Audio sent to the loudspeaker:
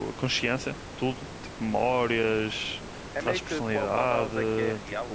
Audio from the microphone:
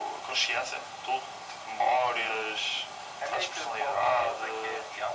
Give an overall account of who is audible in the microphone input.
both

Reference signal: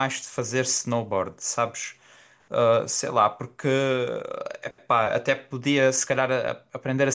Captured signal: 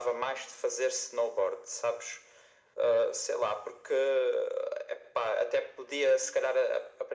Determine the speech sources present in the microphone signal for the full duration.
echo only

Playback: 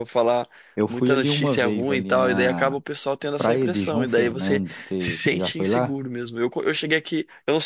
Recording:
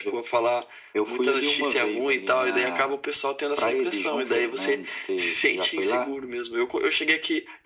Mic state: echo only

